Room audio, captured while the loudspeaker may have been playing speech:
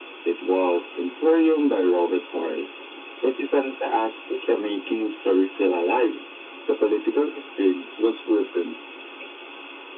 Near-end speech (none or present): none